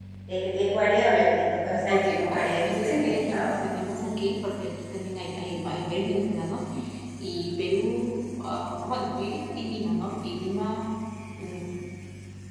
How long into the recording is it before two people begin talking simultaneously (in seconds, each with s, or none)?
1.7 s